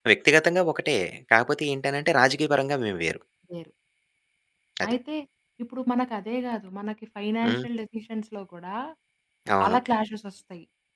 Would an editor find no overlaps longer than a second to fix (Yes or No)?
Yes